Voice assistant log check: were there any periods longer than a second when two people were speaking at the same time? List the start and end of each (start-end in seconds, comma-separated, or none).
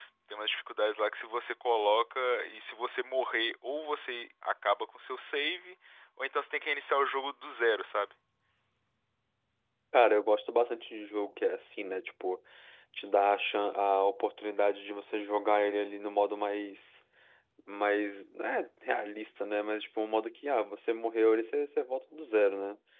none